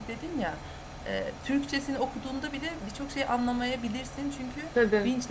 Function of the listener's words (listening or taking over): listening